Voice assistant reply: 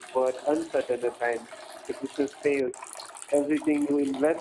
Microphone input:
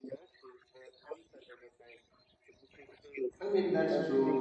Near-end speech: present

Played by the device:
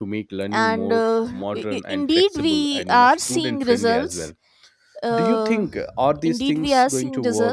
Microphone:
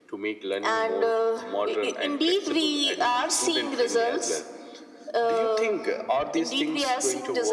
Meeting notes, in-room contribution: none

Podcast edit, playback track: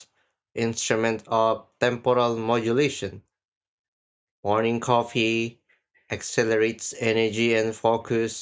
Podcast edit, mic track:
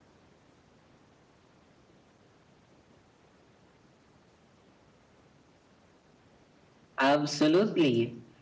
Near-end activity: present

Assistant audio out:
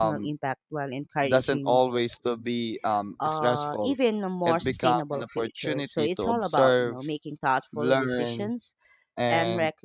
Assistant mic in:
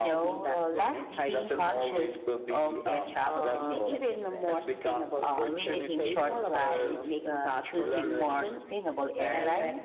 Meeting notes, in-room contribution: present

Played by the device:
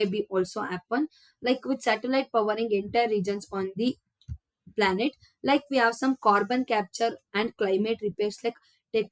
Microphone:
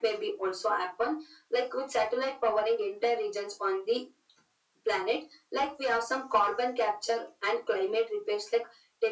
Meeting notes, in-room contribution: none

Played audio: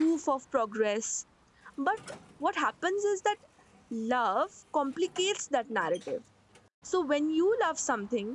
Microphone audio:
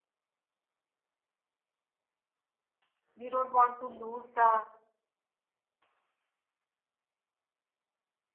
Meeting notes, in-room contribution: present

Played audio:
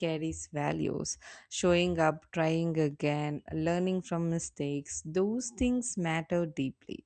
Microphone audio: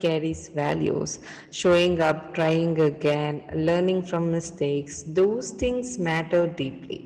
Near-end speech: none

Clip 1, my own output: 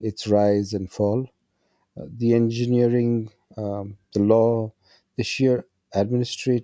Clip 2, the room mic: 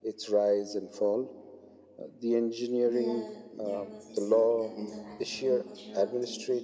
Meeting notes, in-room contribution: present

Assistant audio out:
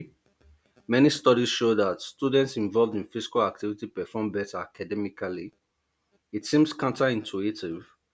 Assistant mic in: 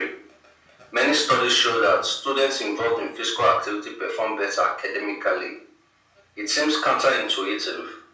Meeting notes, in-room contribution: none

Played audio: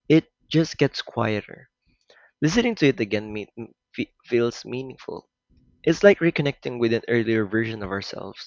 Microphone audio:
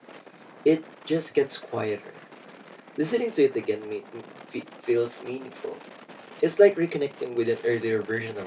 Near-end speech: none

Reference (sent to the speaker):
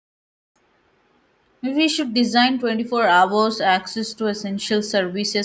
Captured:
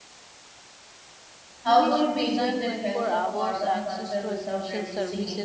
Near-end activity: present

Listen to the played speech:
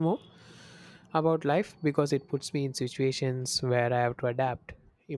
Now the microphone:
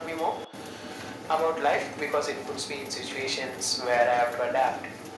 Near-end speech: none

